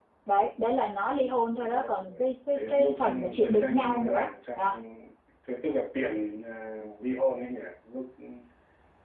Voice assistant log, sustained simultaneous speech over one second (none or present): present